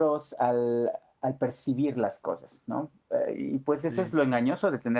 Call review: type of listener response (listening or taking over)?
listening